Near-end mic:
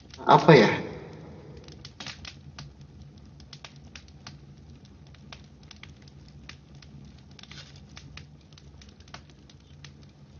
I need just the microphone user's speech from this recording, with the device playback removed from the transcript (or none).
apa ya?